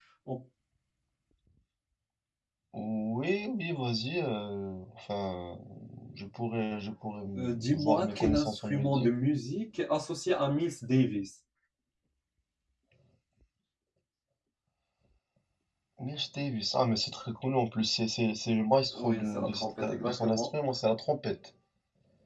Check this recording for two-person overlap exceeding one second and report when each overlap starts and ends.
7.4-9.1, 18.9-20.5

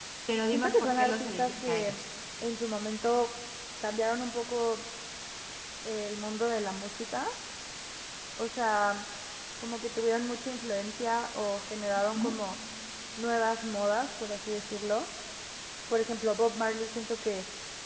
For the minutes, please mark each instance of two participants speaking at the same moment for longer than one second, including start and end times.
0.5-1.9

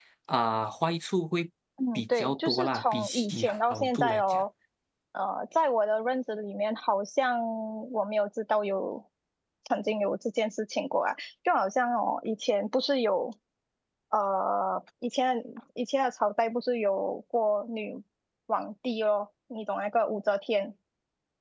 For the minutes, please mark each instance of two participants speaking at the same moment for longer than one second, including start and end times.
1.9-4.4

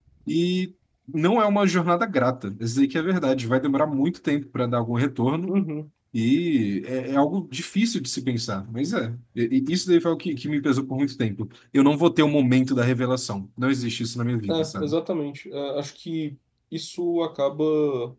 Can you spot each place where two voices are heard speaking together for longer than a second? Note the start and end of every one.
none

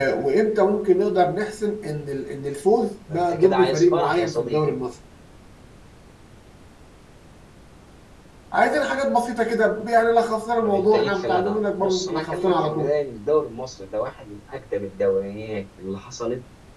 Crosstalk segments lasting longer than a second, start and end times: 3.1-4.7, 10.6-12.9

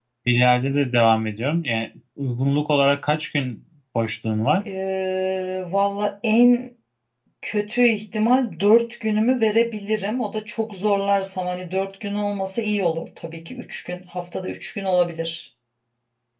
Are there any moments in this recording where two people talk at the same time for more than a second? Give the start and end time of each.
none

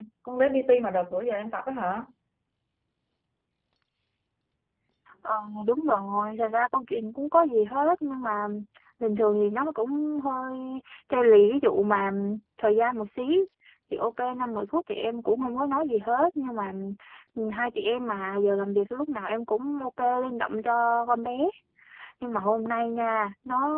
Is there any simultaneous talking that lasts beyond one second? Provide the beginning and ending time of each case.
none

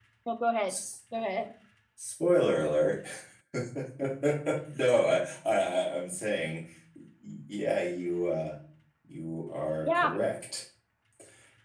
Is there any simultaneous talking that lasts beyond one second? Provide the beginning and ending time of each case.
none

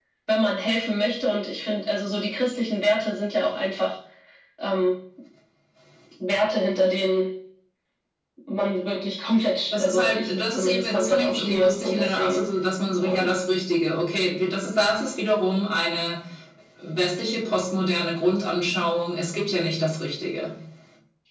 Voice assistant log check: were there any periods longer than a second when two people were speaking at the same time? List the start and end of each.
9.7-12.4

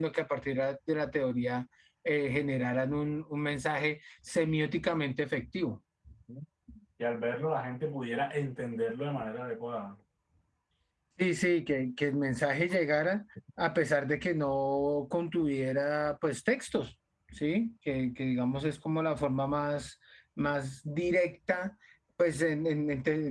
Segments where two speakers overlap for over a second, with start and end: none

